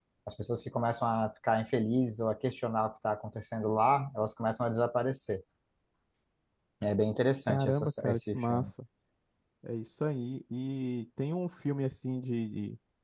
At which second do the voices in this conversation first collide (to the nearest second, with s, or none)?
7 s